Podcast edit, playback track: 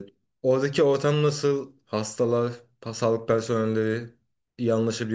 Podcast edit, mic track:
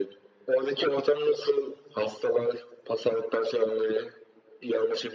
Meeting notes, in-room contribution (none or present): none